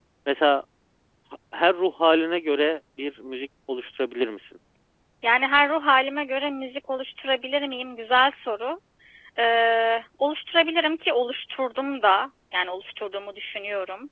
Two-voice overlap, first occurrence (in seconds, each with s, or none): none